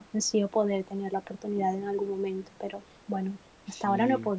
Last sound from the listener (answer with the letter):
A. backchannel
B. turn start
B